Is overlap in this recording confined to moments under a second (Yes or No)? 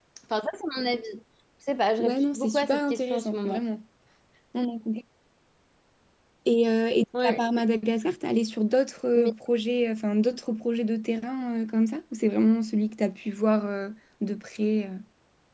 No